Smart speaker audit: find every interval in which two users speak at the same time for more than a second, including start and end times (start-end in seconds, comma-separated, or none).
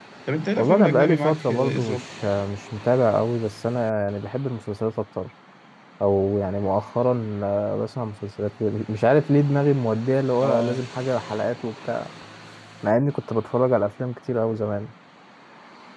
0.6-2.0